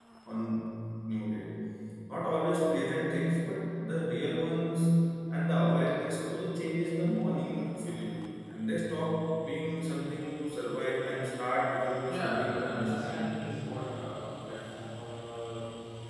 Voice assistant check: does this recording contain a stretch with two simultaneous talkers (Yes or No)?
Yes